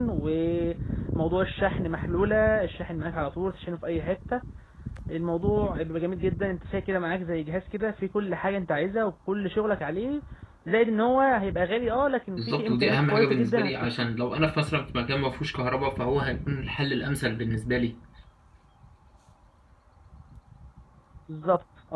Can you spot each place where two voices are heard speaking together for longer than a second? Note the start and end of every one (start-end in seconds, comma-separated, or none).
12.4-14.1